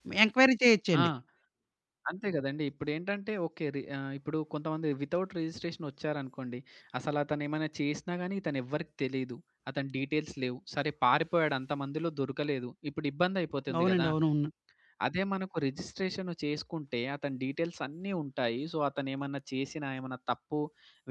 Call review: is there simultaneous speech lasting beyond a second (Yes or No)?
No